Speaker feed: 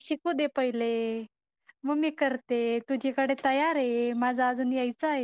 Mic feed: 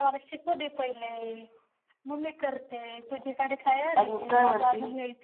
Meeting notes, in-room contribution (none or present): present